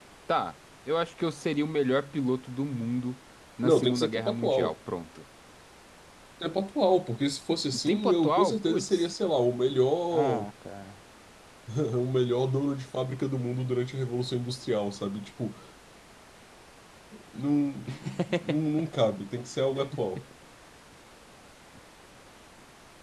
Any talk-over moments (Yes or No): Yes